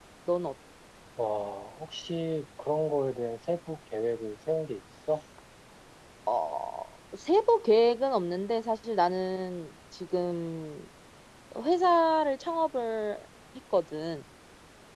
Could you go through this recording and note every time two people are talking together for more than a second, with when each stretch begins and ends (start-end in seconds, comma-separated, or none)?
none